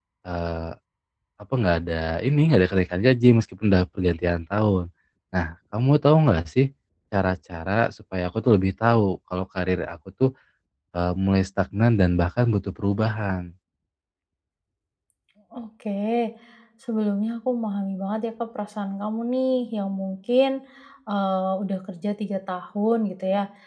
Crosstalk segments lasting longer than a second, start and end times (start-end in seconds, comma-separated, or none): none